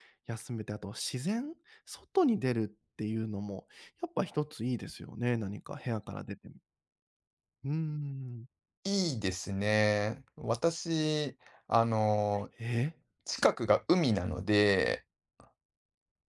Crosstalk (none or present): none